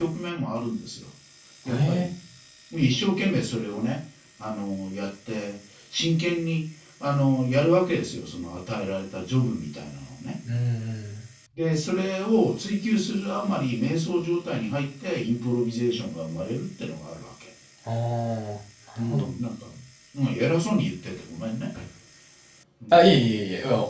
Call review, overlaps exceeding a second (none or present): none